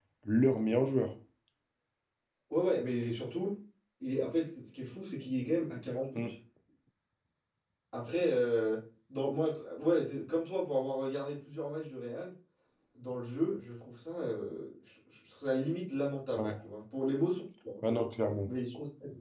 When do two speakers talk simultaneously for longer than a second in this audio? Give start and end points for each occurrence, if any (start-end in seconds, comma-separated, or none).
none